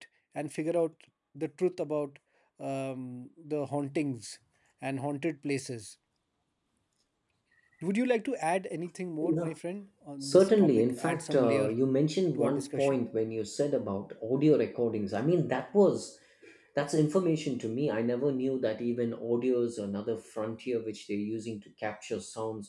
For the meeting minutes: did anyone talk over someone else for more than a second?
Yes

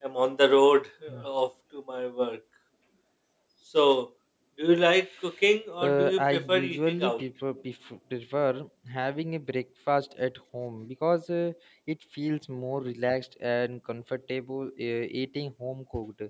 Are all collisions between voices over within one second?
No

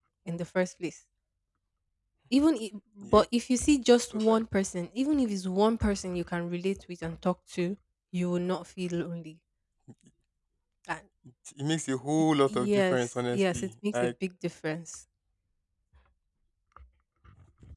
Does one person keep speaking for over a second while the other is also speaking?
Yes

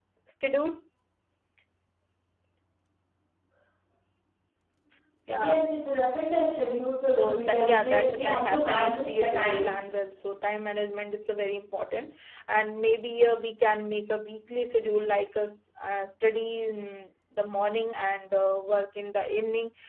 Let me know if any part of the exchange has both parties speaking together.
Yes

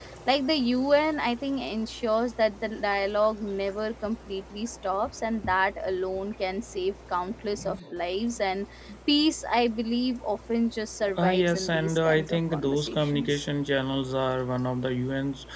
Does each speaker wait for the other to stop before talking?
No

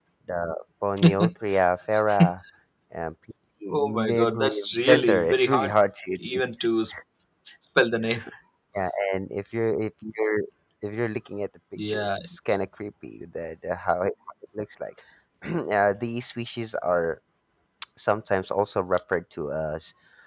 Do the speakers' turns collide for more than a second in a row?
Yes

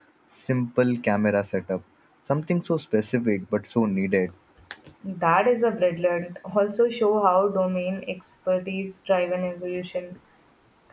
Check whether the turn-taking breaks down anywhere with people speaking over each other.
No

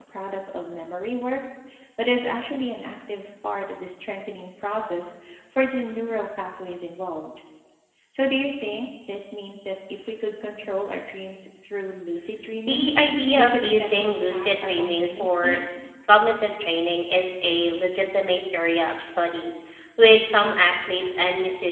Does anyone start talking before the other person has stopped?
Yes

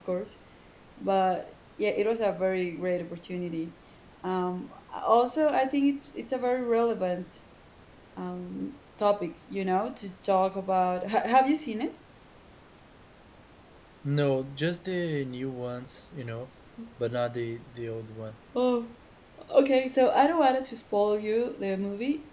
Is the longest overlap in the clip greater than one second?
No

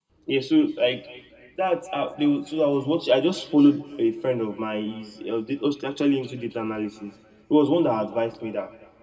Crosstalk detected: No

